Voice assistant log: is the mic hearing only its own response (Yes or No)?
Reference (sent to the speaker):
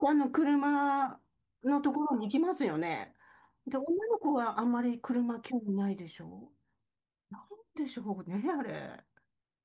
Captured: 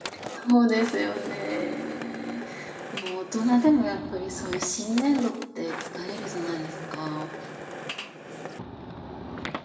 No